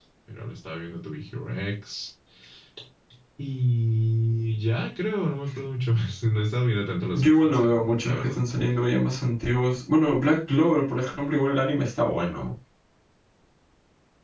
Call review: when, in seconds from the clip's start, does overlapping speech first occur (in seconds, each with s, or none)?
7.1 s